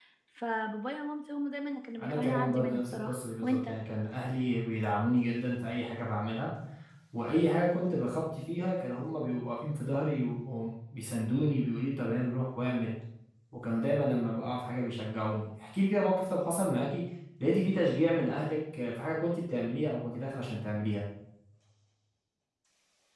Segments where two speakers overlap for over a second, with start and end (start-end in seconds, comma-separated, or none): 2.0-3.6